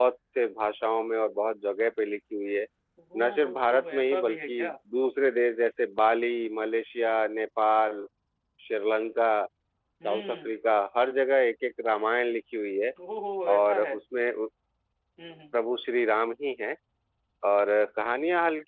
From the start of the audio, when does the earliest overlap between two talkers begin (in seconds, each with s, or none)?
3.2 s